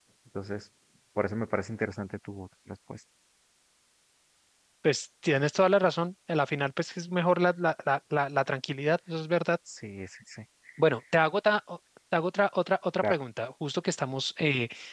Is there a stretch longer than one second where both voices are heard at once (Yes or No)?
No